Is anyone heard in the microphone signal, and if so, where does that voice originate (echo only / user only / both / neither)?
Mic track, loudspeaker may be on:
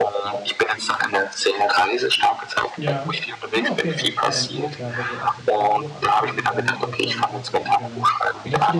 both